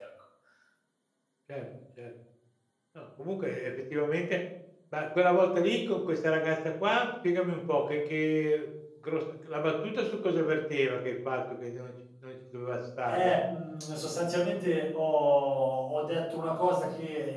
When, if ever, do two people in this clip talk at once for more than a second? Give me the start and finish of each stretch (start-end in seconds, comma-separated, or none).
none